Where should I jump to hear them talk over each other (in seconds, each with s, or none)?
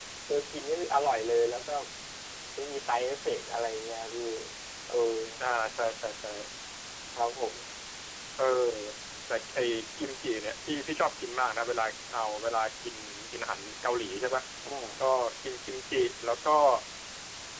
none